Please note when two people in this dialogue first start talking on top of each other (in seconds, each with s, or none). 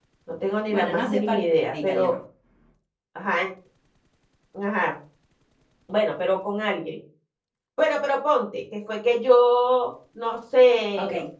0.7 s